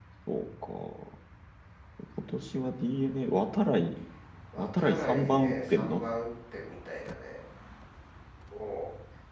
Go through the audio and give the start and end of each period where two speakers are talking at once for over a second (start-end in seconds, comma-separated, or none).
4.6-6.0